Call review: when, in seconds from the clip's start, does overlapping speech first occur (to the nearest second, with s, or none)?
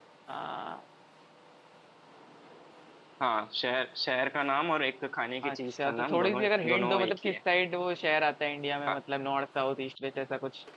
5 s